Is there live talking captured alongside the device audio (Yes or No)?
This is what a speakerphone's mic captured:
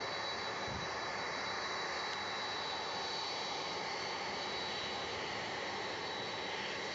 No